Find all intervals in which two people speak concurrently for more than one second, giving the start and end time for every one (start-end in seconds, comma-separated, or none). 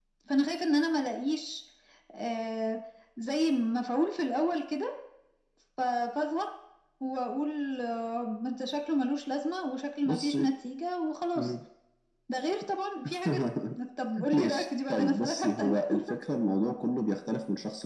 14.3-15.8